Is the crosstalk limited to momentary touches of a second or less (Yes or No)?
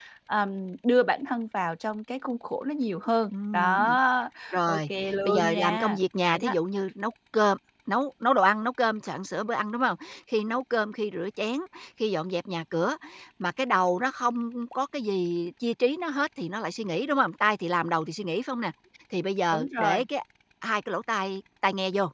No